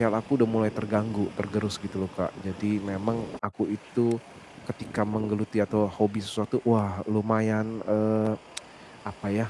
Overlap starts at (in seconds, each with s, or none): none